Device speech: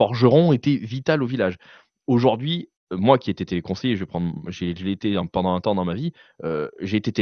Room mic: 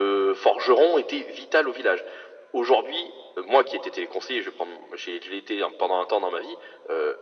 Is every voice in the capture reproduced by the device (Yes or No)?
Yes